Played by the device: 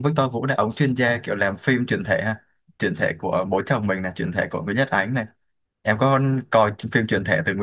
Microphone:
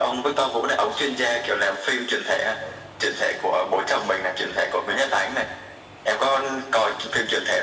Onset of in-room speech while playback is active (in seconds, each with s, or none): none